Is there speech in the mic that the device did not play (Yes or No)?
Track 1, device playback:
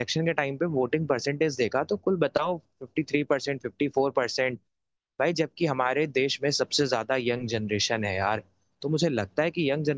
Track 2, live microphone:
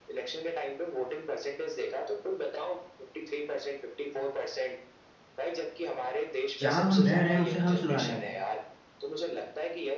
Yes